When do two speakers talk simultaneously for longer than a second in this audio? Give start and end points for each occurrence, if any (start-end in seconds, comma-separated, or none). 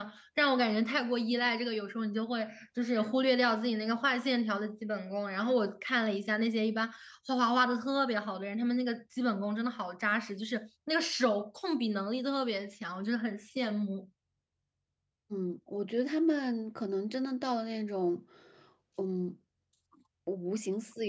none